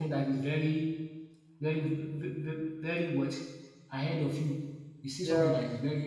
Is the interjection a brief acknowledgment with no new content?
Yes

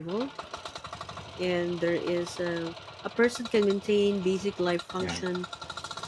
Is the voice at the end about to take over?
No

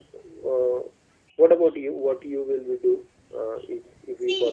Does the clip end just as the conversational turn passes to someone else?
Yes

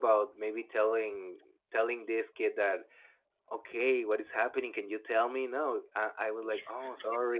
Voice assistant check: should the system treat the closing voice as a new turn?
No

